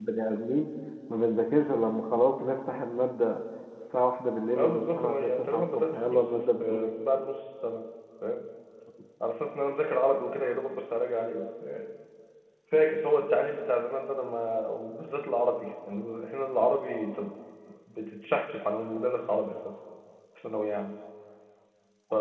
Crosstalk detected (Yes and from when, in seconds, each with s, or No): Yes, from 4.5 s